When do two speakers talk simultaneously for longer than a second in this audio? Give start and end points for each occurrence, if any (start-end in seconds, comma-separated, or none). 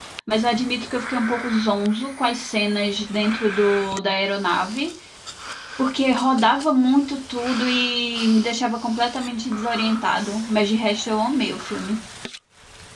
none